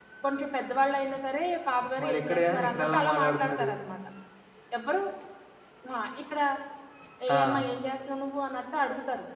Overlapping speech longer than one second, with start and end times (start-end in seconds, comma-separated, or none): 2.0-3.7